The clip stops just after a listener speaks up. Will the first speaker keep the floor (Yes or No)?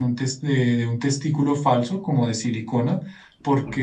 Yes